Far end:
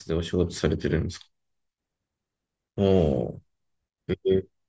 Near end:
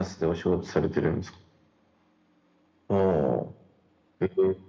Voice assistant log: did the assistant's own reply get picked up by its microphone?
Yes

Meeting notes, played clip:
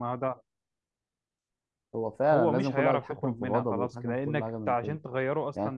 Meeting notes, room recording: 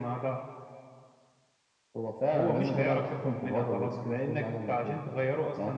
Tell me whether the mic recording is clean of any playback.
No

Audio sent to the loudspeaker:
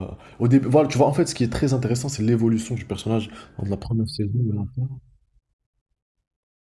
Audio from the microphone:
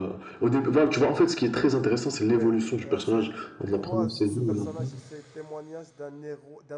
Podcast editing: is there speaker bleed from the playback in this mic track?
Yes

